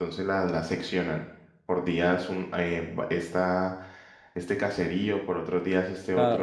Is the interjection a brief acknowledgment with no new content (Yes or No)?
No